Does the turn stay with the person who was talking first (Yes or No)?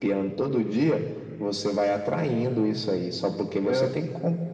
Yes